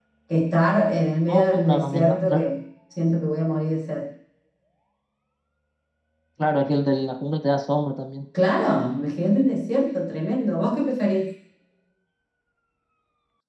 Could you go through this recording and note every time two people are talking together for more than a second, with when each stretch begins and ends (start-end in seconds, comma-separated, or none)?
1.3-2.5